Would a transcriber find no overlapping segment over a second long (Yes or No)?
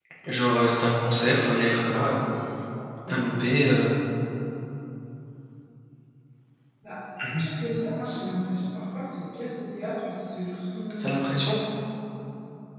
Yes